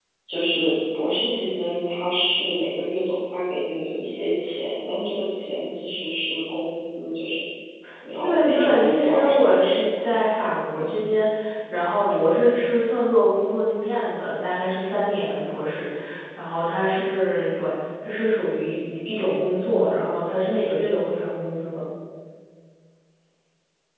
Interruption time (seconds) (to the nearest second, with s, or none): 8 s